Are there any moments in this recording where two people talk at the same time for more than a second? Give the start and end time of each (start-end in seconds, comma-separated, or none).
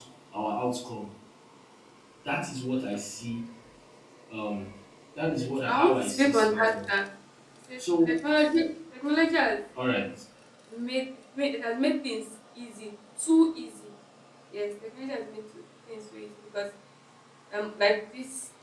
5.4-6.7